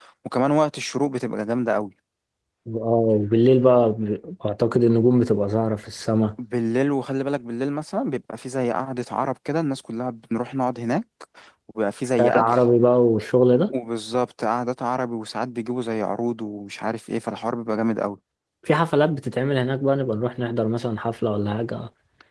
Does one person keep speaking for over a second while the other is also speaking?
No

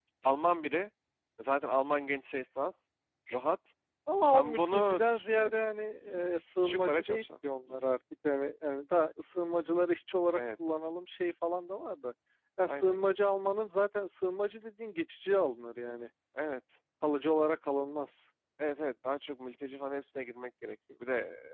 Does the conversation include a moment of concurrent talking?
Yes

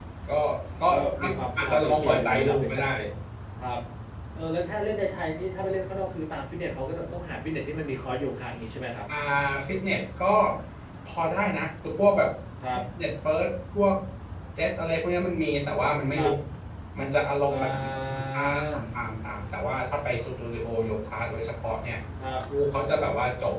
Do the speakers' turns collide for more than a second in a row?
Yes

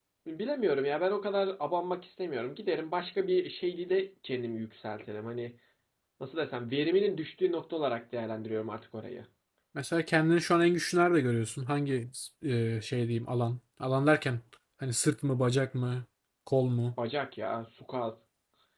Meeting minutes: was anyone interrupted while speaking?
No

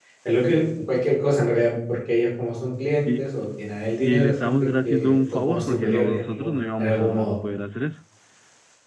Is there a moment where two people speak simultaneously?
Yes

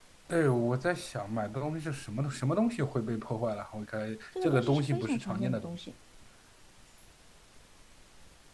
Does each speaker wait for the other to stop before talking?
No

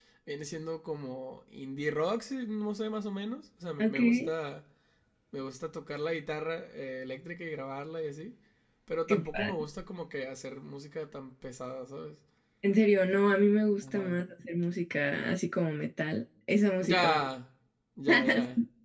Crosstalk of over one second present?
No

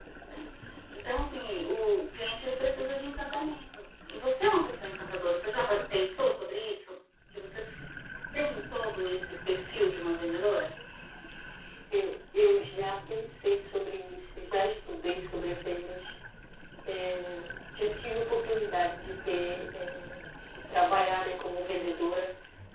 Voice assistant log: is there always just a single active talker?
Yes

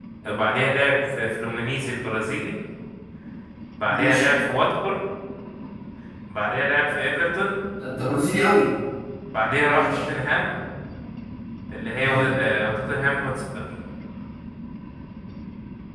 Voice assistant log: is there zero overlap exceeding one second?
Yes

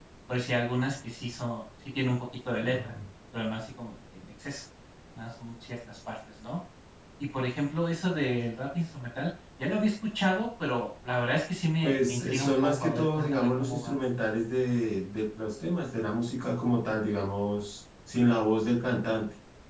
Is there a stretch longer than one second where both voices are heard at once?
Yes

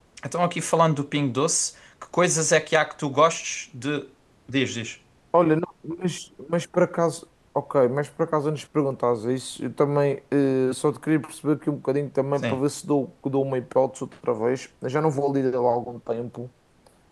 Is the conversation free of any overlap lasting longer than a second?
Yes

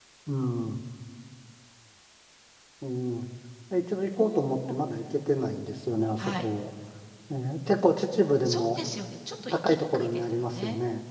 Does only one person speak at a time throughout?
No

